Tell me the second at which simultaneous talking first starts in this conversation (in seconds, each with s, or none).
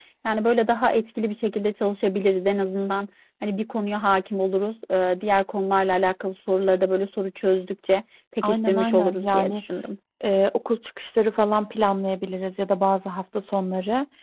8.4 s